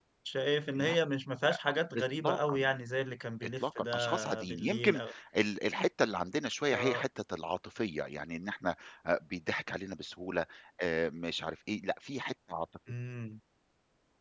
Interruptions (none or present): present